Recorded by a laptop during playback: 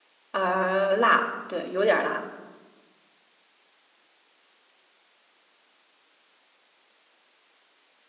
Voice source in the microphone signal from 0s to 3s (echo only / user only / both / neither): user only